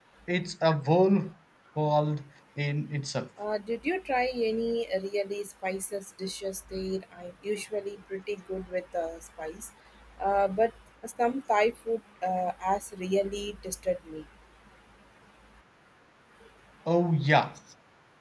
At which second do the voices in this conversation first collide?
none

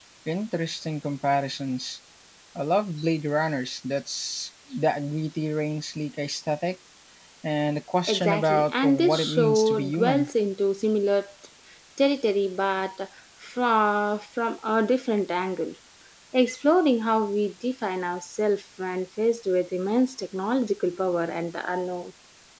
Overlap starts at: 8.1 s

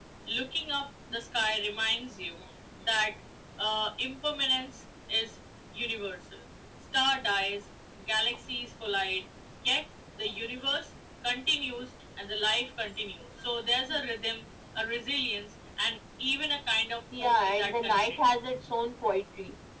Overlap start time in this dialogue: 17.1 s

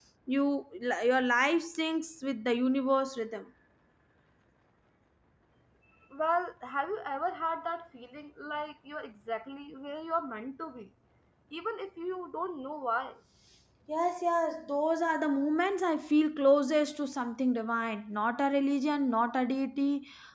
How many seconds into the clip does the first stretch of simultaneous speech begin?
none

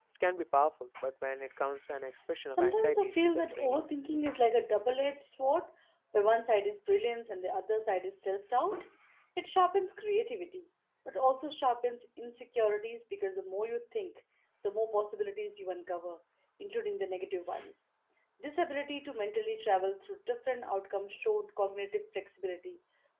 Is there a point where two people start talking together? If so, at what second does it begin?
2.5 s

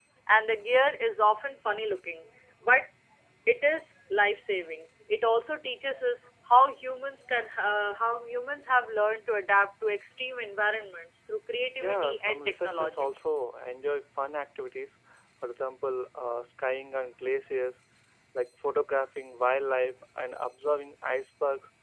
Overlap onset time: 11.8 s

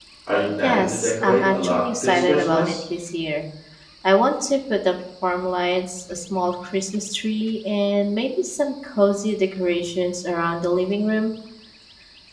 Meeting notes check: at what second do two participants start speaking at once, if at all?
0.6 s

